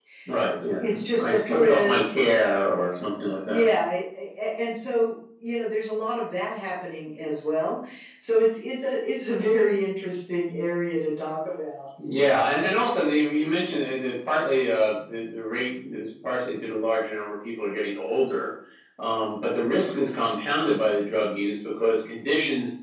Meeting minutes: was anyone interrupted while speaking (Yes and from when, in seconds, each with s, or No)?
Yes, from 0.6 s